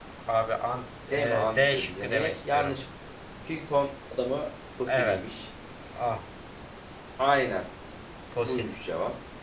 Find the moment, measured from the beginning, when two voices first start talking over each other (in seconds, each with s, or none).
1.1 s